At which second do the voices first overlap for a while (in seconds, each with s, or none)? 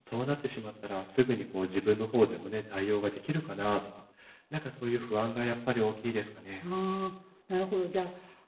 none